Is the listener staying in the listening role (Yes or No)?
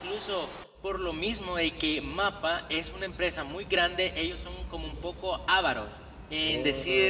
Yes